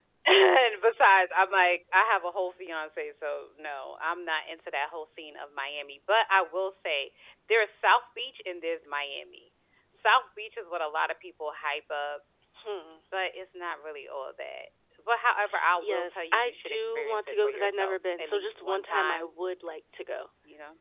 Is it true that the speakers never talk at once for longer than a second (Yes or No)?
No